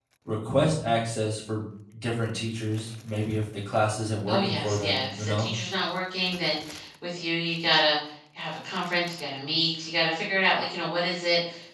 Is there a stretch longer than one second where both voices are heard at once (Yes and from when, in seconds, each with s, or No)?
Yes, from 4.3 s